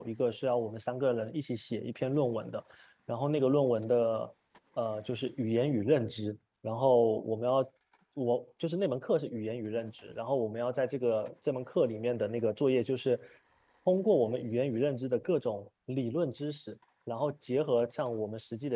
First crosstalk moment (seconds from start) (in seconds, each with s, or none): none